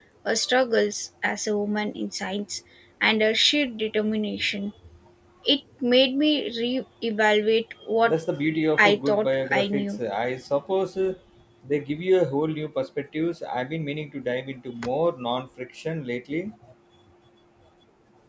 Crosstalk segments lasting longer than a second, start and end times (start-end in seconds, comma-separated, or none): 8.8-10.0